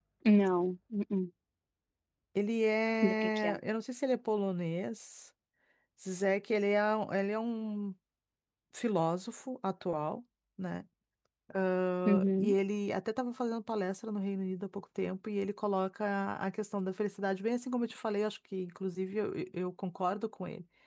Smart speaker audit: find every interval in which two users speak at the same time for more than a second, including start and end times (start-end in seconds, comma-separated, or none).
none